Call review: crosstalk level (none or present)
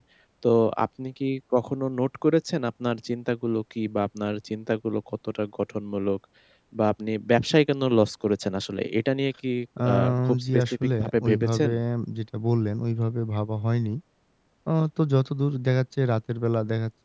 present